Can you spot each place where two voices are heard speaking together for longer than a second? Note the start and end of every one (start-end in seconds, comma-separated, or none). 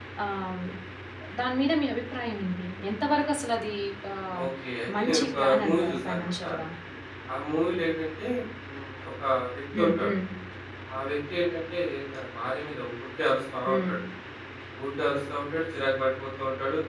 5.0-6.3